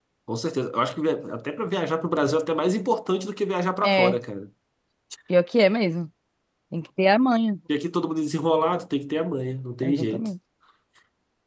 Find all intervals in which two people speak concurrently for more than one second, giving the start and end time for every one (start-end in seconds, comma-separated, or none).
none